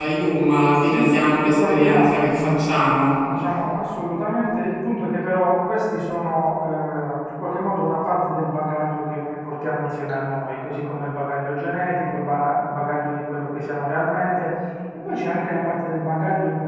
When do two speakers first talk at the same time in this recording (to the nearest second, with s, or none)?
1 s